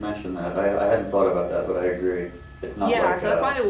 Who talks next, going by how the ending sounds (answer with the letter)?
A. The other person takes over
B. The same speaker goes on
A